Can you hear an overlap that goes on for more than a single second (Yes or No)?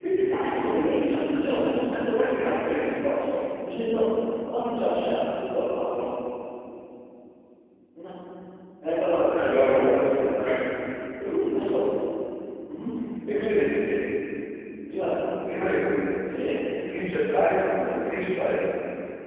Yes